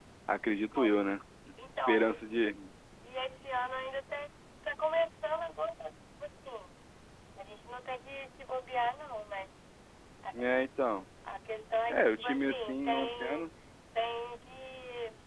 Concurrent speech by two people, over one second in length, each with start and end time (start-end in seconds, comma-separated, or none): 11.9-13.5